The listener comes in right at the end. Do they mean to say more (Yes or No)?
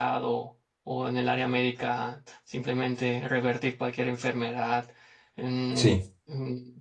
No